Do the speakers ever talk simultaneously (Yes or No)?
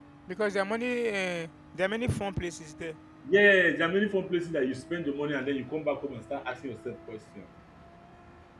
No